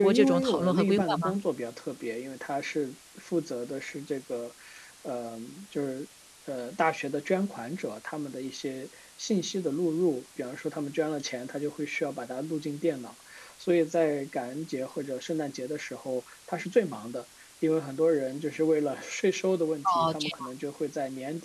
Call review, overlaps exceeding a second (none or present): present